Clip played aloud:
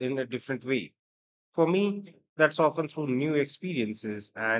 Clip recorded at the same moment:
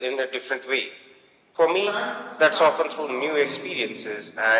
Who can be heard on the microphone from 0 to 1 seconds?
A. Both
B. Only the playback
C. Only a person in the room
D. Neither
B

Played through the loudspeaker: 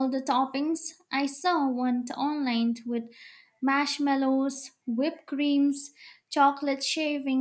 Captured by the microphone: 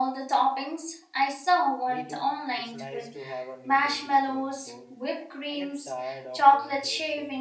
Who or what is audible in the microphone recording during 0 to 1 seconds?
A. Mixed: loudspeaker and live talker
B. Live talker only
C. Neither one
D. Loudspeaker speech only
D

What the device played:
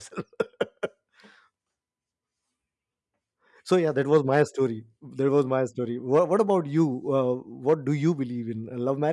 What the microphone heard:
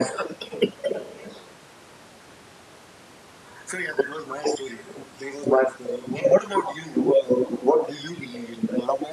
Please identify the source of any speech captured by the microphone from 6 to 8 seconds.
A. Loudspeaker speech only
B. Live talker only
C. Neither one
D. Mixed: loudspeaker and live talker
A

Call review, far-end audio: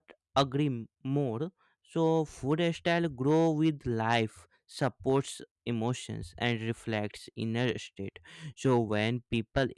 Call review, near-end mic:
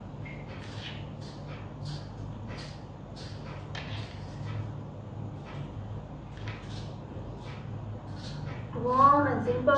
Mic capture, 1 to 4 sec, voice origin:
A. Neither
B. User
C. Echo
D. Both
A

